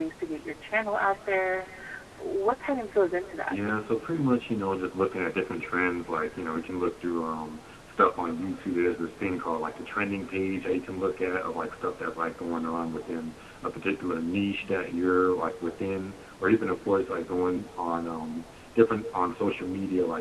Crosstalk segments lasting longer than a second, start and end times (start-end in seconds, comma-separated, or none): none